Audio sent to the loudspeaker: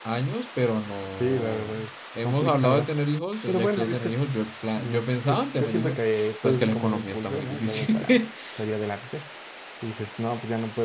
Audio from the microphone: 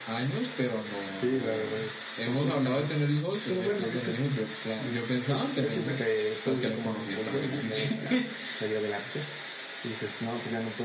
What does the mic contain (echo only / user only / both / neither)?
echo only